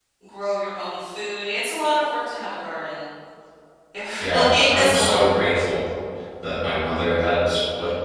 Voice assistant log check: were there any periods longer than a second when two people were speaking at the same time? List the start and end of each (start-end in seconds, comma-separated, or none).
4.2-5.5